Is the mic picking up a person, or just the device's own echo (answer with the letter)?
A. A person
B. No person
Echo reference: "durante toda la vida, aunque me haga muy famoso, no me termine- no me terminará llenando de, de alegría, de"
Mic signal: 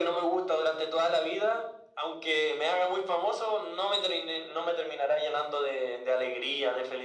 B